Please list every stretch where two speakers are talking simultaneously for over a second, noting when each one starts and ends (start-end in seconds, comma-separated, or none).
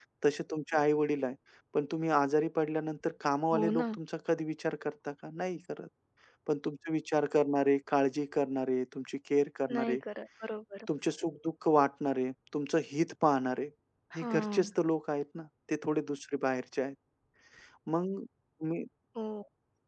none